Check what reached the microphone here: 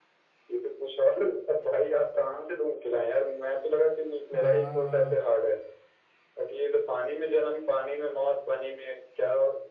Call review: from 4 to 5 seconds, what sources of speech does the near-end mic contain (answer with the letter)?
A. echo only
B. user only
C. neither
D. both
D